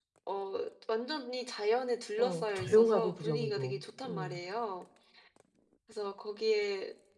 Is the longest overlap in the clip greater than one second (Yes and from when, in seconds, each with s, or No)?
Yes, from 2.2 s